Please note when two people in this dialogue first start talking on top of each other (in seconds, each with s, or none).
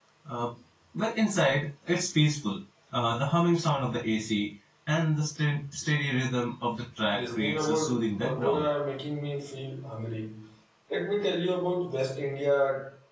7.1 s